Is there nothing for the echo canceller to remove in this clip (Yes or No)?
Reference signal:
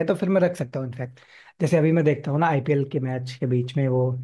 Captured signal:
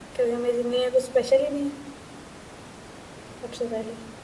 Yes